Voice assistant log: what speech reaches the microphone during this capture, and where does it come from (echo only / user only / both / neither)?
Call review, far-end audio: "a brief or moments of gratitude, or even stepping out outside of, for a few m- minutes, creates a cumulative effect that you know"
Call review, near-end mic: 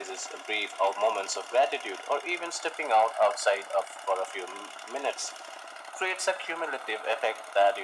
echo only